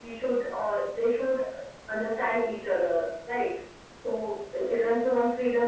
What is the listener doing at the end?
listening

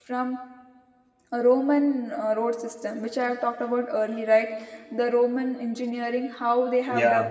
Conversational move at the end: listening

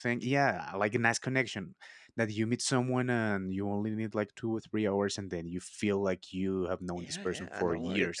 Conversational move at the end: taking over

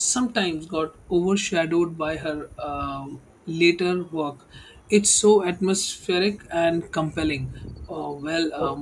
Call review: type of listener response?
listening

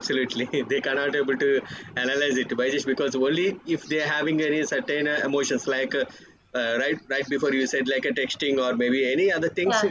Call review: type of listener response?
listening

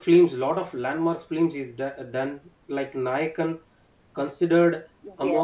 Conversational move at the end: listening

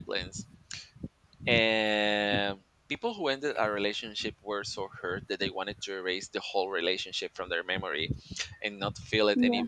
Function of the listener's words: listening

